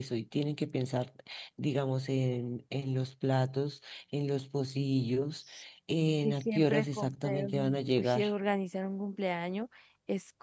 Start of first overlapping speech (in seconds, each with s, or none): 6.2 s